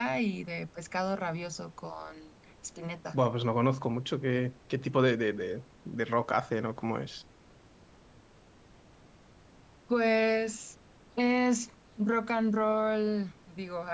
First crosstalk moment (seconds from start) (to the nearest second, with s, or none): none